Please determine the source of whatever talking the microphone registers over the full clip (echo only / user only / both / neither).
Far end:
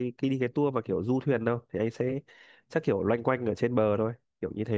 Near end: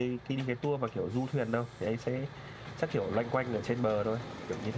echo only